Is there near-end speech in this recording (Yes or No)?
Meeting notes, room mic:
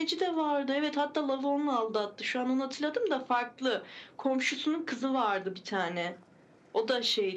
No